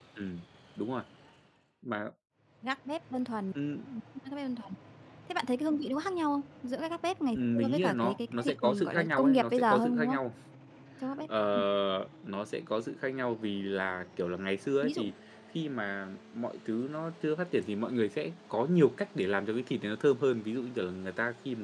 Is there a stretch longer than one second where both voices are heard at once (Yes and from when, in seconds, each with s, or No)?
Yes, from 7.3 s